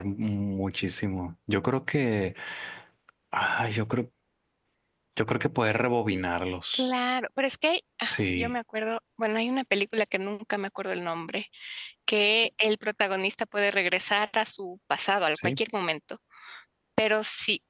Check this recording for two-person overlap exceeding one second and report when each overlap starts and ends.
none

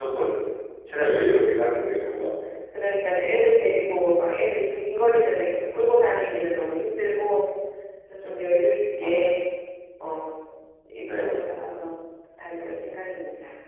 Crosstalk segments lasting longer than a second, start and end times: none

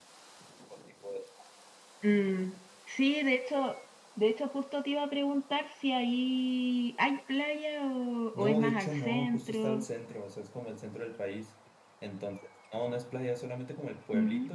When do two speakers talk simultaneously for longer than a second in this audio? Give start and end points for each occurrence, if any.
8.3-9.8

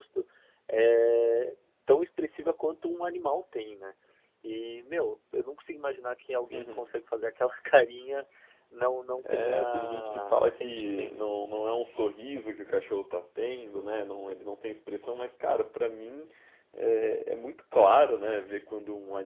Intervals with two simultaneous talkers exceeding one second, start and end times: 9.2-11.4

